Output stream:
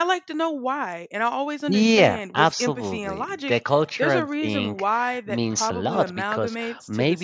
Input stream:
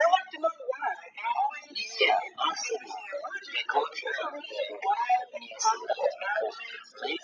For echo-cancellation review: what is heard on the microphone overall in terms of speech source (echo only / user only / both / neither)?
echo only